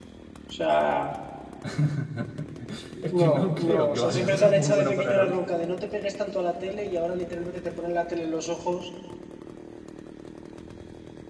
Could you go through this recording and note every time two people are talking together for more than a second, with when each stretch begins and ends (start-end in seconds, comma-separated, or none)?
3.2-5.4